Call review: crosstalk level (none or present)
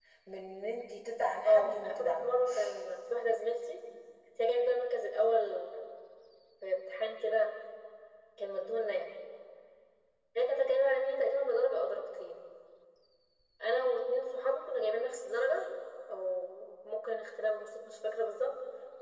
present